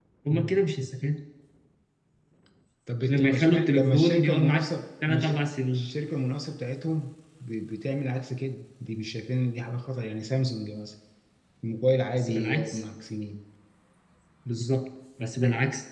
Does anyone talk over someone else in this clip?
Yes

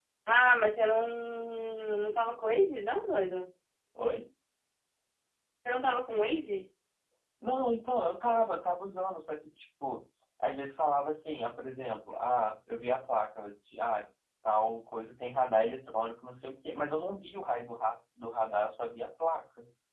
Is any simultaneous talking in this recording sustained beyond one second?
No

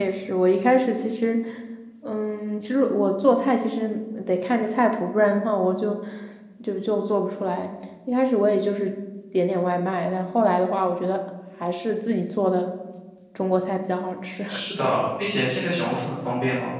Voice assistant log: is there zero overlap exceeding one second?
Yes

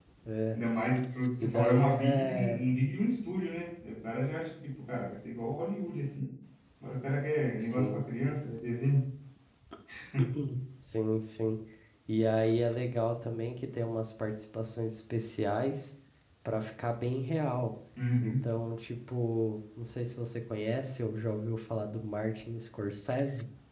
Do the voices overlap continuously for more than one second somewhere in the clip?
Yes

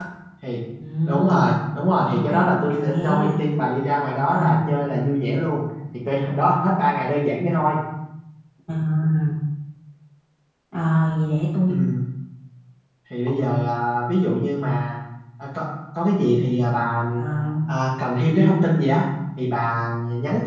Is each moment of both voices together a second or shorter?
No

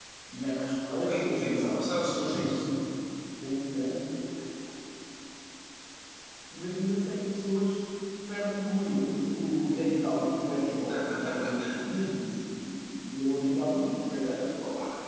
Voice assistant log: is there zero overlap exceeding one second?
No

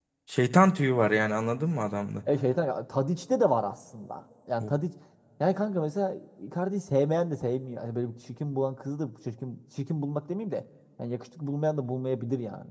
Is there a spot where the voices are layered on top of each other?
No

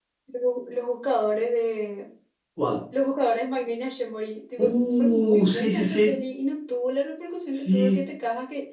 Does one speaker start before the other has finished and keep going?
Yes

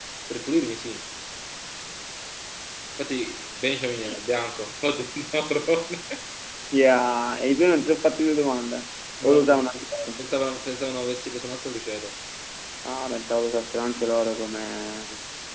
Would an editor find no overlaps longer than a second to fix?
Yes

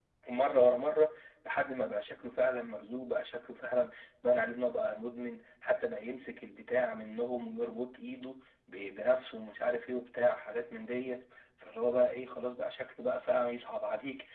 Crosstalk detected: No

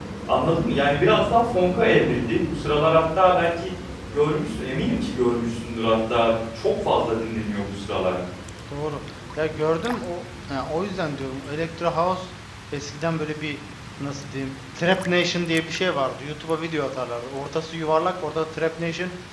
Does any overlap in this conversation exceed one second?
No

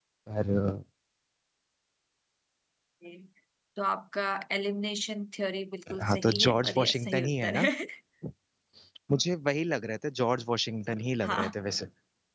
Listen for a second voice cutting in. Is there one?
Yes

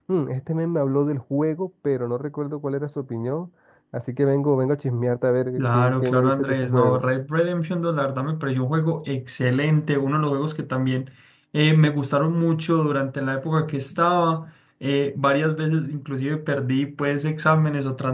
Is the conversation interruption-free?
No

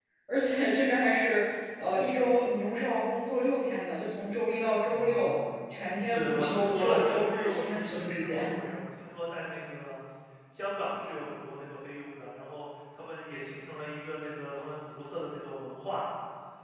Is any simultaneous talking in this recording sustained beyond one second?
Yes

